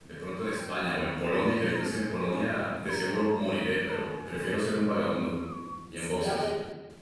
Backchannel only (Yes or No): No